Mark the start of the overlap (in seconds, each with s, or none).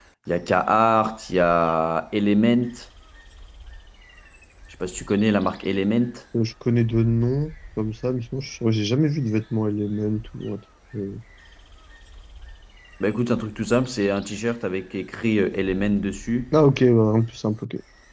none